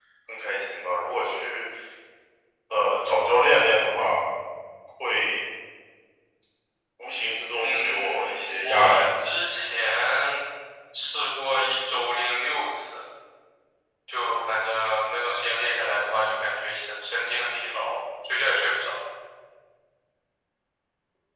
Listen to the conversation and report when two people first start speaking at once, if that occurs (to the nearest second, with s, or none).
8 s